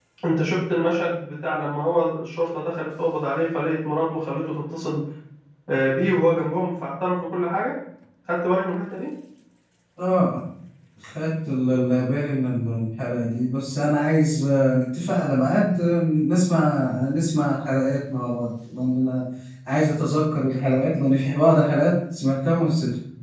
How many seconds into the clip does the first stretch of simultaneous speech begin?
none

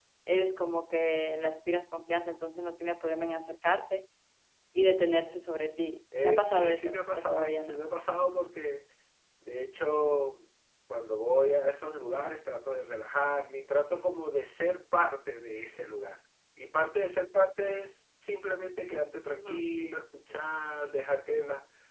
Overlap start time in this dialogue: 6.2 s

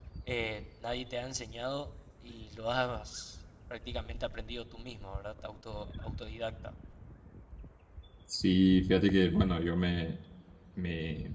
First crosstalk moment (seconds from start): none

